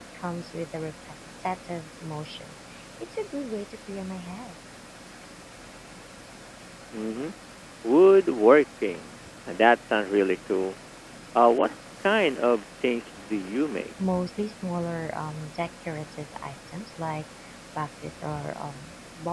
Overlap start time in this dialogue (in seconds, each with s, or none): none